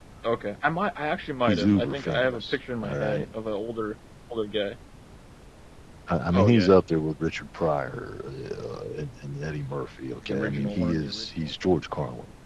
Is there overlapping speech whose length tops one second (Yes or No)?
Yes